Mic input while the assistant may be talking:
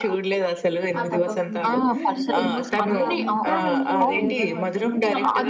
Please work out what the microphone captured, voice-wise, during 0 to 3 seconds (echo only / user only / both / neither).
both